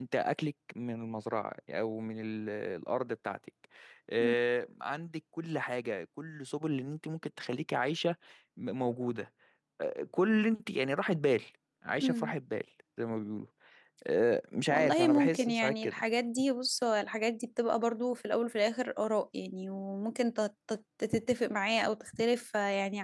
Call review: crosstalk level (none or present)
present